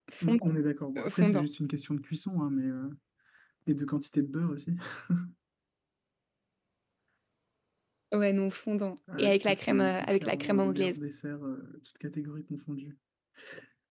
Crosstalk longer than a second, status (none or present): present